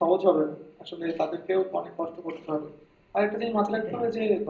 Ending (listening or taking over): listening